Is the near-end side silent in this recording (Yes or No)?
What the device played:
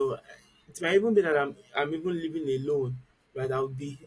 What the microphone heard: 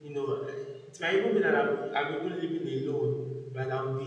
Yes